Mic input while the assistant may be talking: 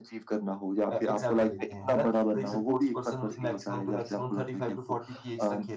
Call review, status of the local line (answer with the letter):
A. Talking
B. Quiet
A